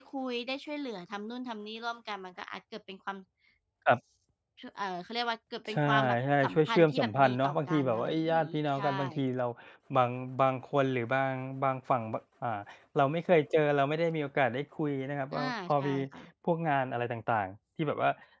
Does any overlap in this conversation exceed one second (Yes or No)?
Yes